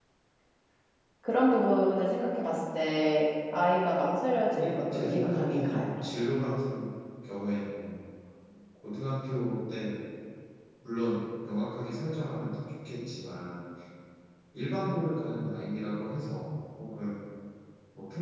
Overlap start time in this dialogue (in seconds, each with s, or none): 4.6 s